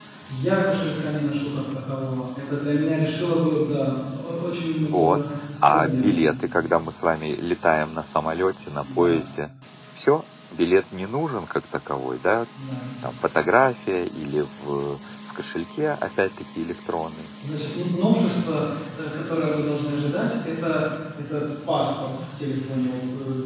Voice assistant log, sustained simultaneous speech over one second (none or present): none